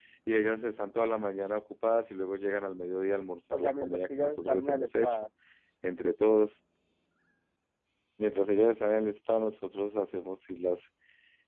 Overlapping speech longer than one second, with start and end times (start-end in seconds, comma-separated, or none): 3.5-5.2